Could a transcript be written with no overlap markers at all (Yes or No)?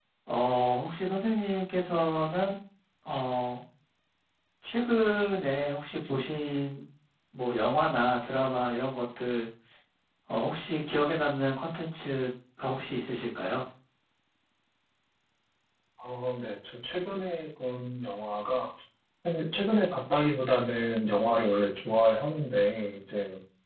Yes